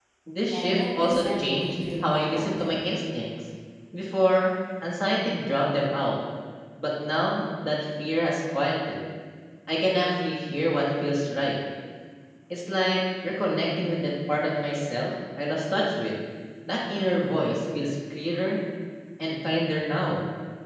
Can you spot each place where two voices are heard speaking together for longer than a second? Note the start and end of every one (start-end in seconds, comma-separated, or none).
0.5-2.7